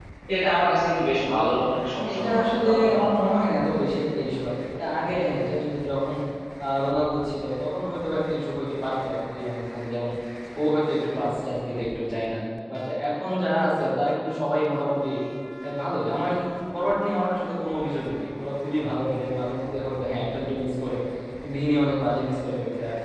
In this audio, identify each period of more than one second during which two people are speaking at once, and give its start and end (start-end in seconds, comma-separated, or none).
2.1-3.3